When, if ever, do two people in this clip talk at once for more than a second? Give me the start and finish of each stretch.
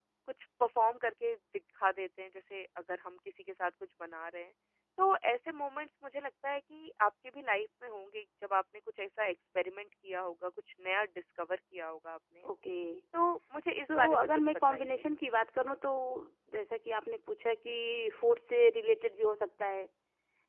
13.8-15.1

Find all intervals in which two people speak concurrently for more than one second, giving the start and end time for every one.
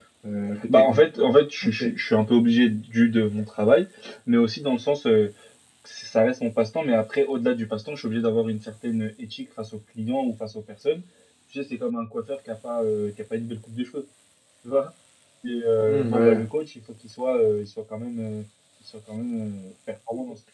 none

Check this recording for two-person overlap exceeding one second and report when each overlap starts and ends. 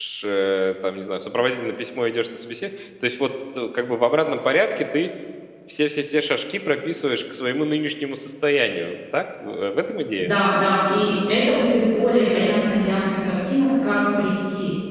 none

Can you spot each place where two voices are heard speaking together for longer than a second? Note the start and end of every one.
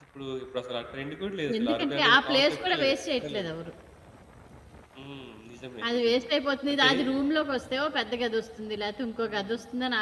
1.6-3.5

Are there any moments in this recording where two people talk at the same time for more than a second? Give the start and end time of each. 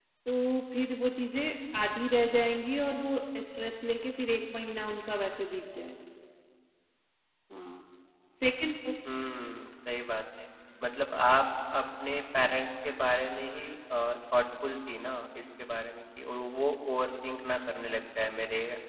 none

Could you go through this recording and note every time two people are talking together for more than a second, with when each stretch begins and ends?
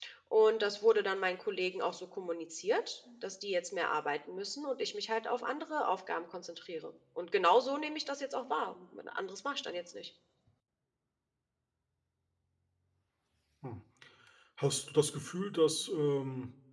none

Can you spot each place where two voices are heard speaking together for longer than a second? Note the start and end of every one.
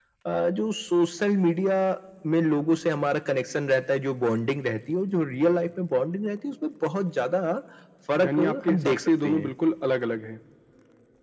8.2-9.5

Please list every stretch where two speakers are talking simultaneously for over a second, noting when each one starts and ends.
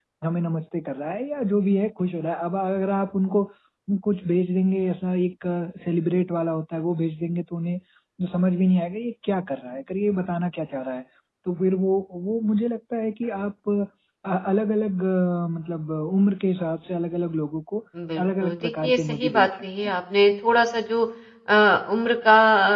18.2-19.9

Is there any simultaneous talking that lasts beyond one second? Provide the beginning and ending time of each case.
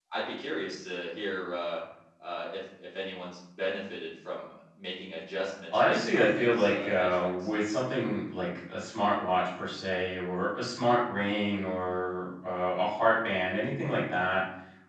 5.7-7.5

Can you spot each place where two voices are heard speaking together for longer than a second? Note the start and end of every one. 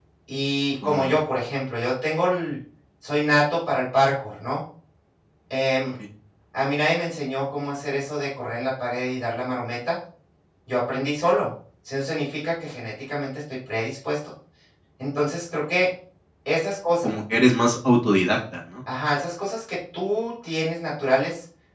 none

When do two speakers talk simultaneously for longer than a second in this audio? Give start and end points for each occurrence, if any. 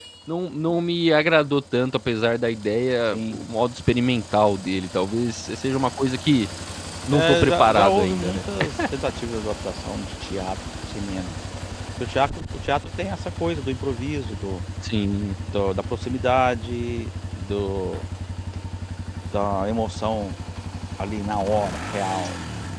7.1-8.4

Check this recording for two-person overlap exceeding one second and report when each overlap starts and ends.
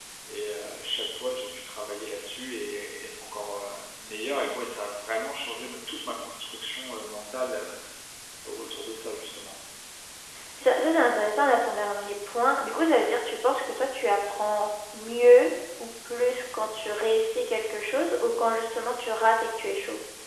none

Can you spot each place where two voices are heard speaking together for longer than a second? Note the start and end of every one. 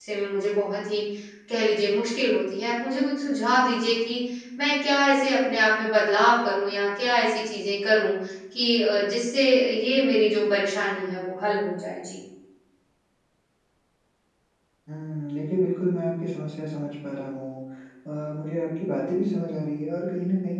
none

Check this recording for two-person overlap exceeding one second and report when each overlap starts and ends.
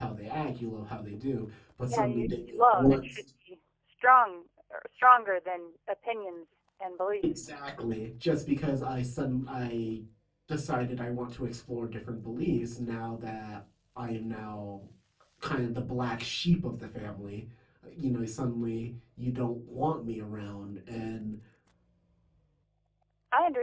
1.8-3.1

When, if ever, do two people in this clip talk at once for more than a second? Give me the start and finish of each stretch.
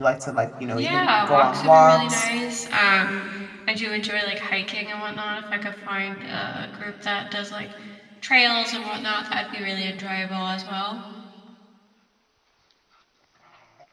0.7-2.3

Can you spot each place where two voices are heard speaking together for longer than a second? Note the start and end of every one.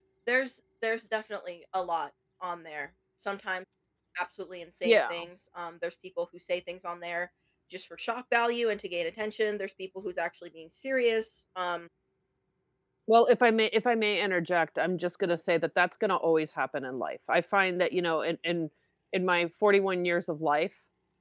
none

